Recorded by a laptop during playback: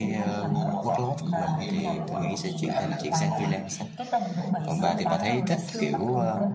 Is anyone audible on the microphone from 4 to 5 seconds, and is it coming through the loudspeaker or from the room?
both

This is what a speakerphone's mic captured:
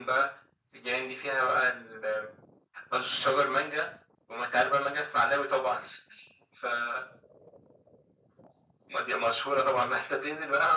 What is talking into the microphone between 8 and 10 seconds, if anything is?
echo only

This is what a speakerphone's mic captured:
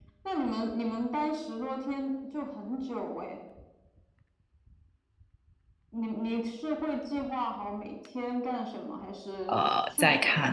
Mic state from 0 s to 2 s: echo only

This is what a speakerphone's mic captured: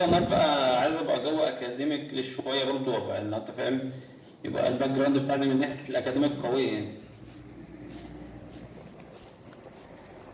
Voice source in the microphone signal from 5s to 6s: echo only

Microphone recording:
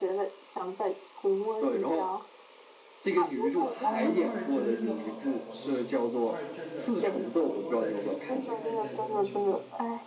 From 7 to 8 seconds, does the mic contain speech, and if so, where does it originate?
both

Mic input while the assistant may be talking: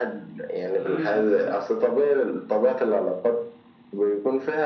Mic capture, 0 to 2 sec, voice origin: both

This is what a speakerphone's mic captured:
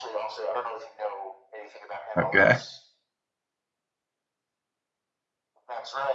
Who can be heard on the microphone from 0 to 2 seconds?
echo only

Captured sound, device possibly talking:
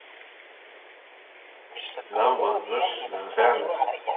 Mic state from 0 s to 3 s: both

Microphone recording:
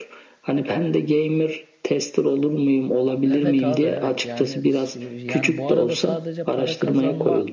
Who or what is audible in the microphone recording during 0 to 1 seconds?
echo only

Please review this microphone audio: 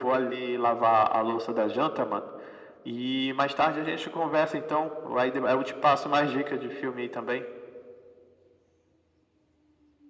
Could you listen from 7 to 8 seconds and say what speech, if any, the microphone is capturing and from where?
echo only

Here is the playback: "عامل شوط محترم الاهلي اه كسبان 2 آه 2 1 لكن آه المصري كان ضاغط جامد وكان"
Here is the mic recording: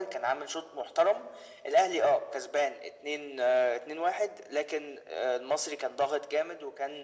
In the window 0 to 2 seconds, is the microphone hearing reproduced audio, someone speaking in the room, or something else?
echo only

